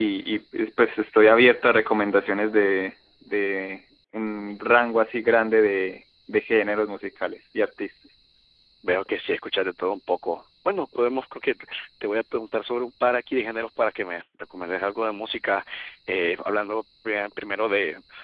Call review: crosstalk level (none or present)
none